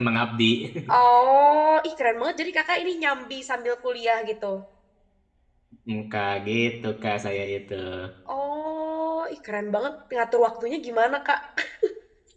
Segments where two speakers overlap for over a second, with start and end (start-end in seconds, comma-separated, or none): none